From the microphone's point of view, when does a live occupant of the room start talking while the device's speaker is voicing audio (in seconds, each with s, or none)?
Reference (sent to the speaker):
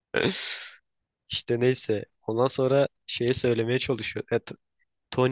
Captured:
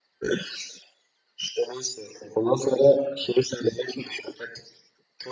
none